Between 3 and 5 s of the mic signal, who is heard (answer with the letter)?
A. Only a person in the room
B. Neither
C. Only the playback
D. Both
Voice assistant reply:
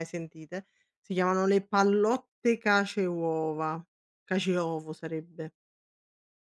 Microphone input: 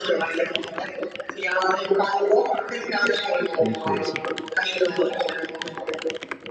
D